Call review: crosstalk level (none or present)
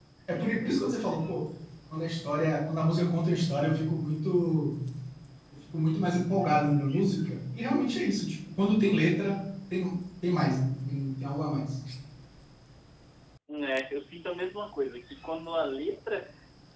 none